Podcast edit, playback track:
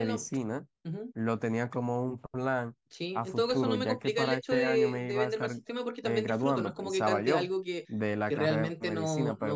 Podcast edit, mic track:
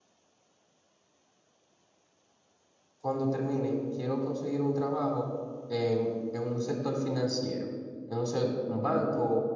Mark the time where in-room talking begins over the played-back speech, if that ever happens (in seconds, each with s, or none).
3.0 s